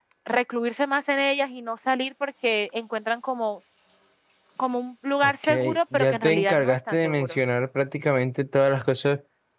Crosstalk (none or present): present